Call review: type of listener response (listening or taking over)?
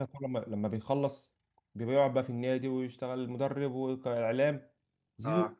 listening